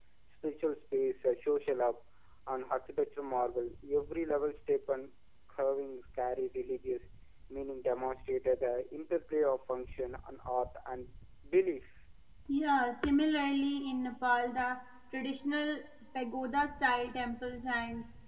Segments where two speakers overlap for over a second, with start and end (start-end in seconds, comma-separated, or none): none